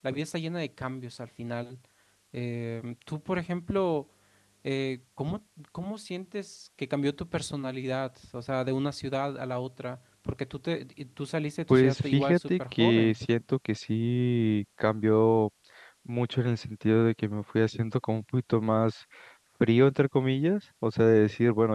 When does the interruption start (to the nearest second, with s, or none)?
12 s